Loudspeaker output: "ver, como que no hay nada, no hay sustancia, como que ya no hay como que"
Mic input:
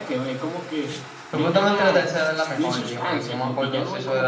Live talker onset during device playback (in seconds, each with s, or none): 1.3 s